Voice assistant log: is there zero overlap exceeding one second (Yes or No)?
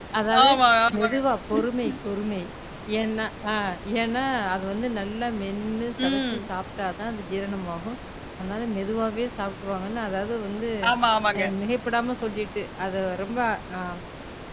Yes